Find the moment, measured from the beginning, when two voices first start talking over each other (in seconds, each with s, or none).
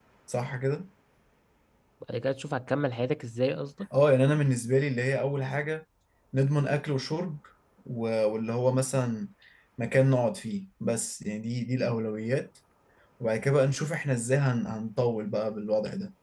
none